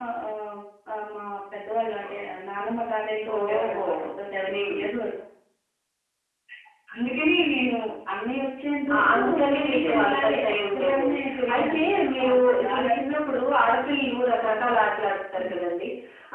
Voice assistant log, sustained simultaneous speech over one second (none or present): present